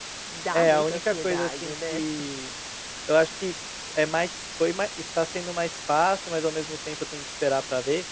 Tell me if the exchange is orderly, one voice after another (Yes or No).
No